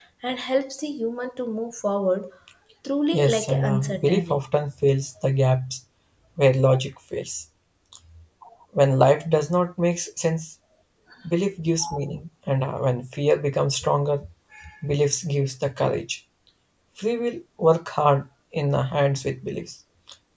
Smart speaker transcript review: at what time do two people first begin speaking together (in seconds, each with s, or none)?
3.1 s